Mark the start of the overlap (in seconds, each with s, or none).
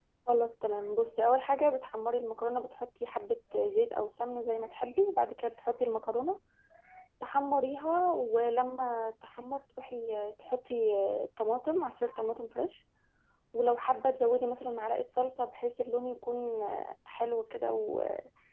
none